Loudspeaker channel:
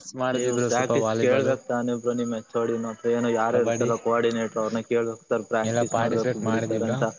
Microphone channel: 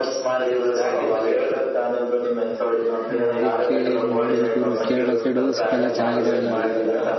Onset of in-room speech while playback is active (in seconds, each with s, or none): 3.1 s